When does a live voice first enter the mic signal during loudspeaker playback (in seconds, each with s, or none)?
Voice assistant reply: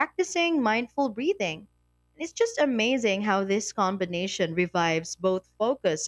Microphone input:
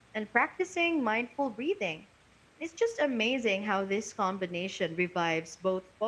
none